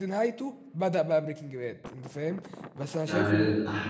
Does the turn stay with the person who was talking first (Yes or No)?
No